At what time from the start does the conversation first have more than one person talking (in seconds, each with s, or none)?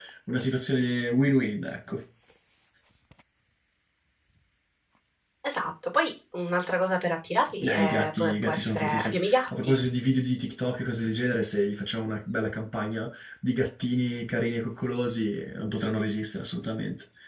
7.6 s